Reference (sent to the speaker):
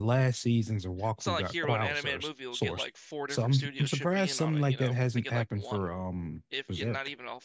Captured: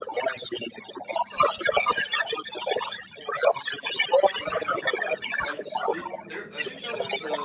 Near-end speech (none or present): present